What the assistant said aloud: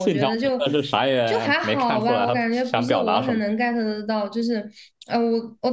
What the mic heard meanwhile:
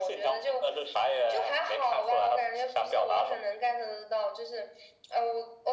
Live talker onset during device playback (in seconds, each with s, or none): none